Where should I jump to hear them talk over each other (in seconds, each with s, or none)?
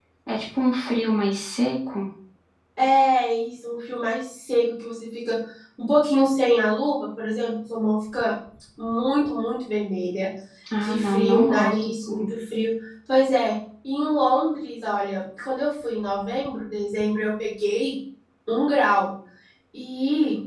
10.8 s